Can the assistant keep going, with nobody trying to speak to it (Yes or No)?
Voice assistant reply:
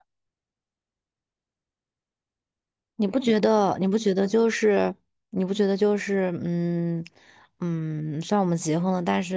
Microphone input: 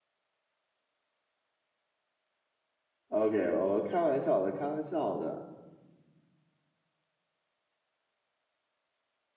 No